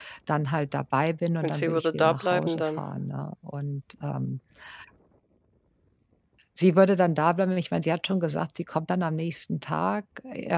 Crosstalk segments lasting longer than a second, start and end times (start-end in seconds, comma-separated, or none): 1.4-2.8